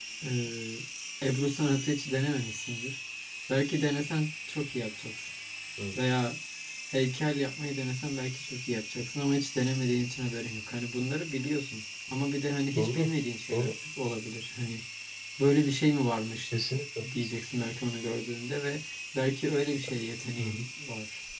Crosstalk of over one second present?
No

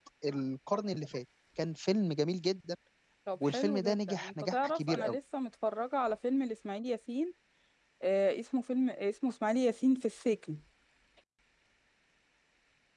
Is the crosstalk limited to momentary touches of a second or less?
No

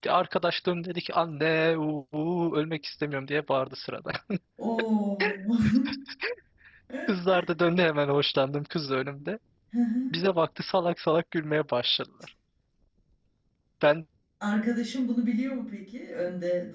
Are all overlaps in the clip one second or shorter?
Yes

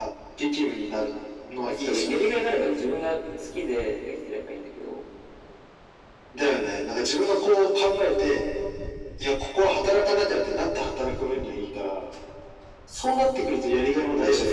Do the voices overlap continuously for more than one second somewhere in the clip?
No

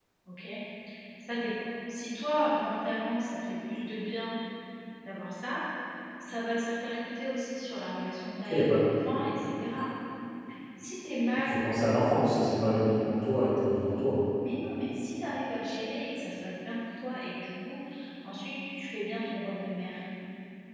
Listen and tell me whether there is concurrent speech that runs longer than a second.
No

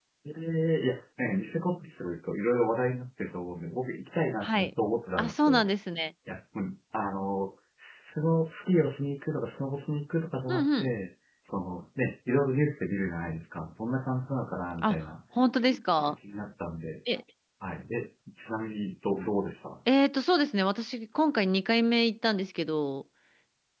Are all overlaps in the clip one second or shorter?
Yes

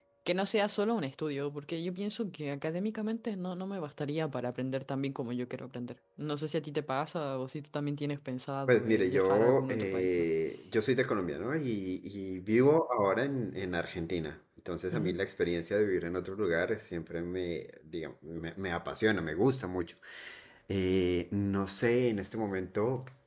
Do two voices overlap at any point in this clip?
Yes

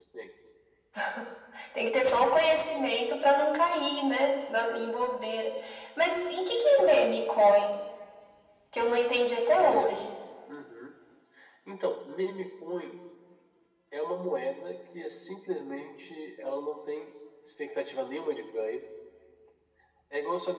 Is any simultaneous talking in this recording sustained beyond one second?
No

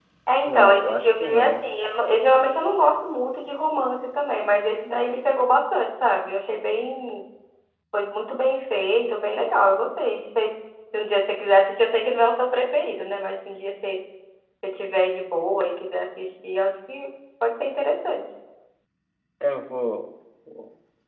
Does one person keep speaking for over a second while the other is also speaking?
Yes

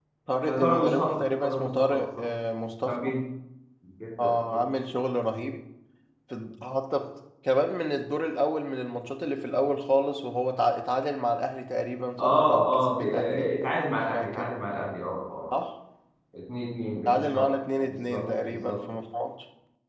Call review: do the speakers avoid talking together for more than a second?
No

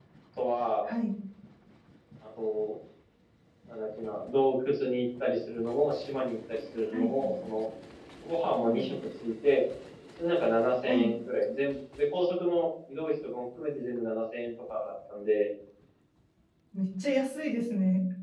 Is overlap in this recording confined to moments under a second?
Yes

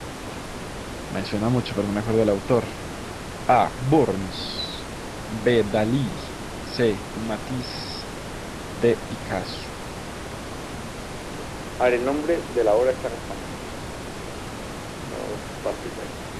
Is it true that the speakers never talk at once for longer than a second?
Yes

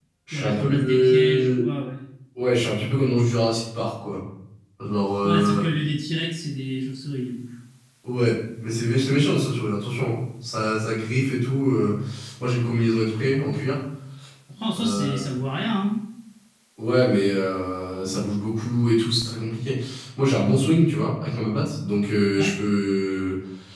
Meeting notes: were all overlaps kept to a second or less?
No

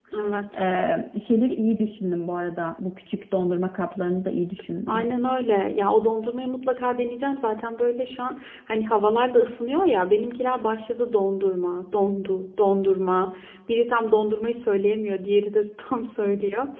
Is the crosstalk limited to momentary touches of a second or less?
Yes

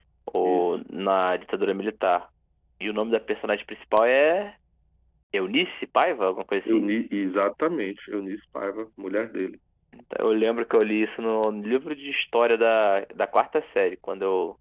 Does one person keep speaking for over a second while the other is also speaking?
No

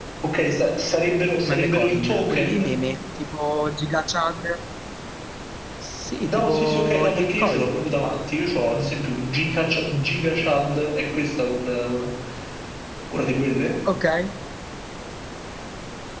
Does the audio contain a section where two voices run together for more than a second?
Yes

